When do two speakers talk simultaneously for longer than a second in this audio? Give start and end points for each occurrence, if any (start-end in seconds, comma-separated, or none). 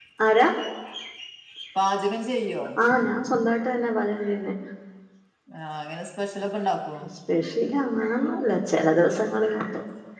none